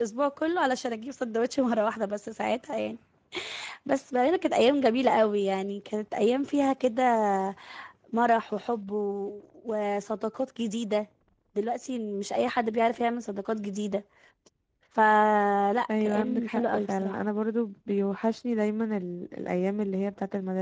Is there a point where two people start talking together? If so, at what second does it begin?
16 s

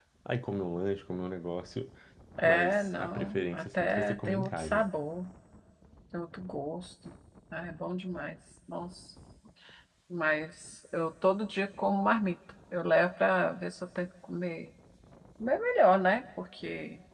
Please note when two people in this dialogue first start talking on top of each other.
2 s

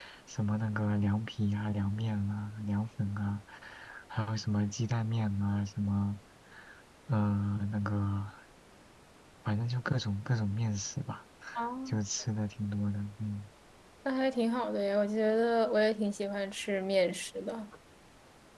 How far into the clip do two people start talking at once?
none

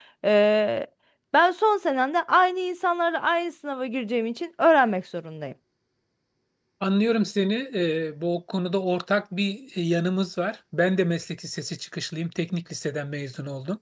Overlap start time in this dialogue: none

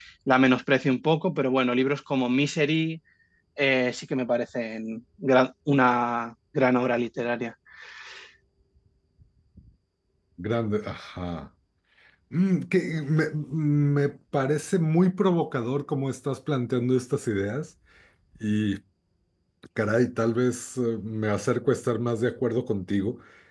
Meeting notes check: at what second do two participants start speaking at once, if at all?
none

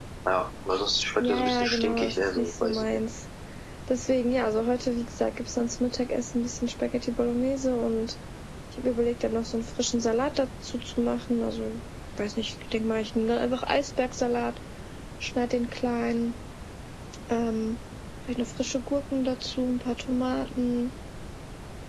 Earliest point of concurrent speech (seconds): 1 s

